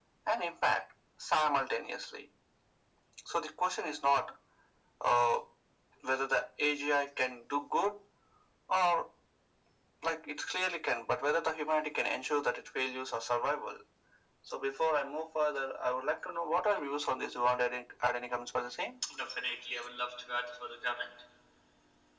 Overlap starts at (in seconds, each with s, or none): none